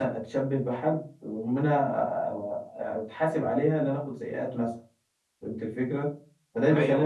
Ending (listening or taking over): listening